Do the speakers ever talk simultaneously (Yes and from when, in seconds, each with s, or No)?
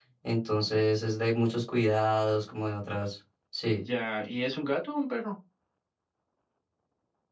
No